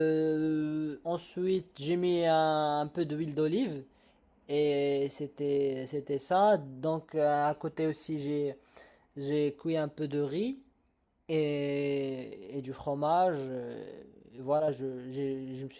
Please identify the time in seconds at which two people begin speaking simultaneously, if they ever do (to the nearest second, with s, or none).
none